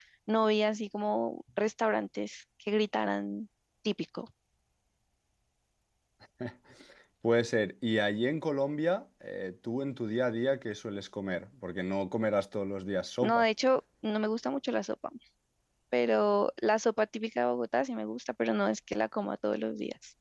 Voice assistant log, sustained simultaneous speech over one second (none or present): none